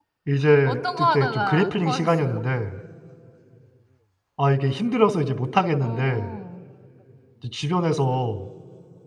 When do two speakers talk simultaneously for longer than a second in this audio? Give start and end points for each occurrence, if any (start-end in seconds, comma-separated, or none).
0.7-2.4